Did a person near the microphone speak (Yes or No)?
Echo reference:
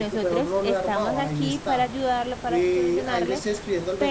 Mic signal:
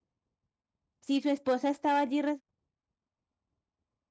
Yes